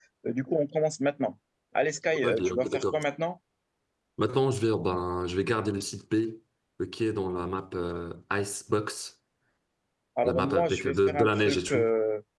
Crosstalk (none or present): present